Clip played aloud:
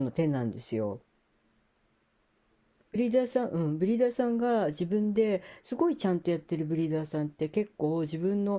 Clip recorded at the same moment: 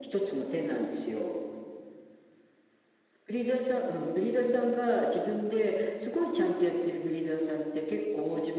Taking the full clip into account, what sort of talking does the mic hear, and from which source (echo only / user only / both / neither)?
echo only